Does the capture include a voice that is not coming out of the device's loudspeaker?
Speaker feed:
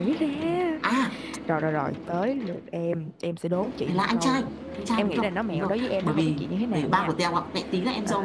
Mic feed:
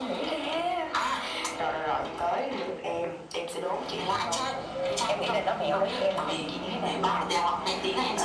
No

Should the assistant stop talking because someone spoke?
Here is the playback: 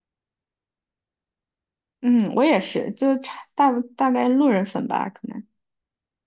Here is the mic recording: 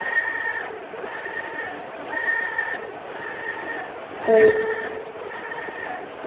Yes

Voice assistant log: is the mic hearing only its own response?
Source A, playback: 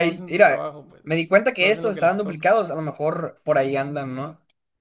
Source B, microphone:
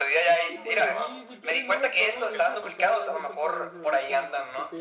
No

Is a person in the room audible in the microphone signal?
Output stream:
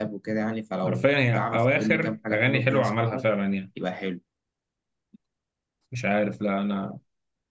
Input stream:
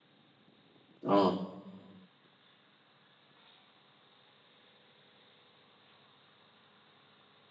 Yes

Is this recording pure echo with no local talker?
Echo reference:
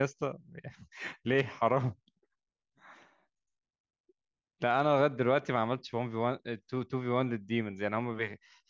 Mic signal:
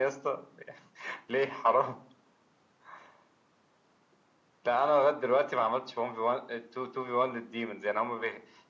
Yes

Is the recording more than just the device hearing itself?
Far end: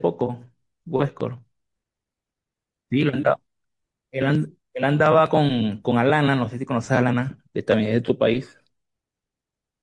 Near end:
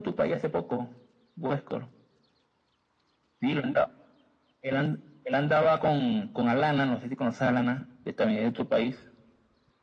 No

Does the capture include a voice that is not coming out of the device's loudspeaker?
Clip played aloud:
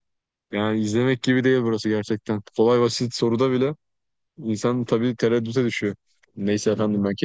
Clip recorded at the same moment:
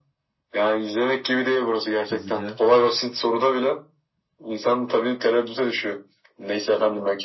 Yes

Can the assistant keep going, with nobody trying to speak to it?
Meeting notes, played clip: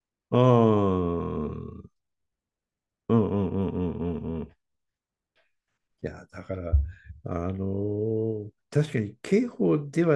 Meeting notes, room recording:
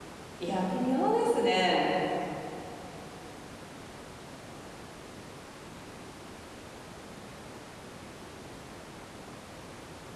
No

